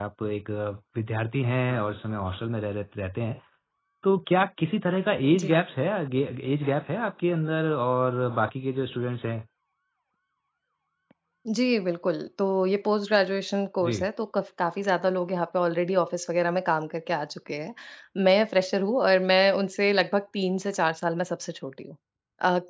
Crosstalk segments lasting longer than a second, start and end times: none

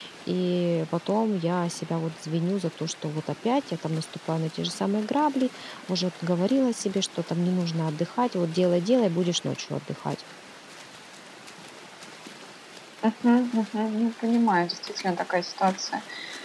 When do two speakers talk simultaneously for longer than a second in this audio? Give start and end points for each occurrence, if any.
none

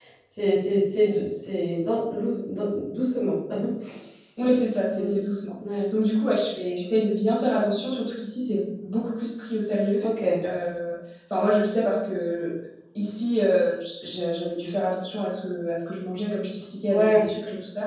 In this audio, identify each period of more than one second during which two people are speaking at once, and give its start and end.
none

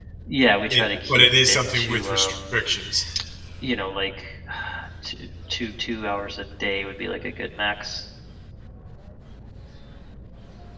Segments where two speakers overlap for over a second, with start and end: 0.7-2.5

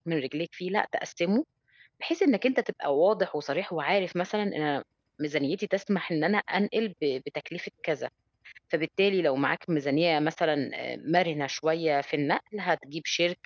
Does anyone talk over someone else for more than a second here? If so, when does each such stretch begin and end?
none

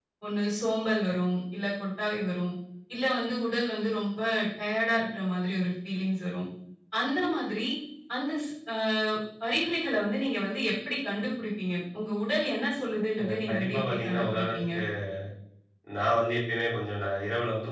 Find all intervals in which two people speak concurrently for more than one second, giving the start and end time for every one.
13.2-14.7

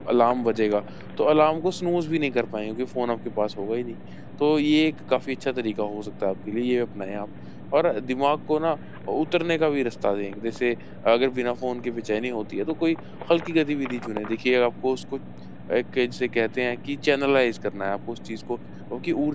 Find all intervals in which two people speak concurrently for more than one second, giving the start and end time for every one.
none

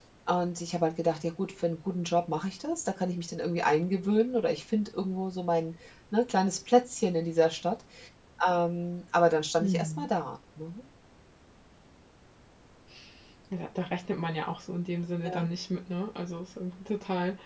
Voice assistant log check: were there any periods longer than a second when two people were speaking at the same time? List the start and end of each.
none

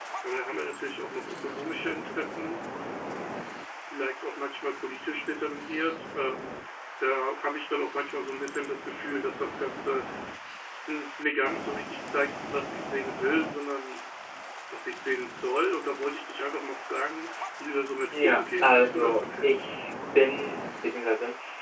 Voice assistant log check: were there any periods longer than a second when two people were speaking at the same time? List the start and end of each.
18.1-19.6

